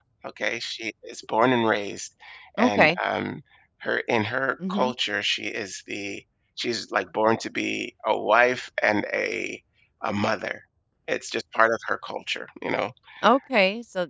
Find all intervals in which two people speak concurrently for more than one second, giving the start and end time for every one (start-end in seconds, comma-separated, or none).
none